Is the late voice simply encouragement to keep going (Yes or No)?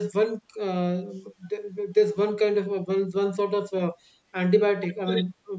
No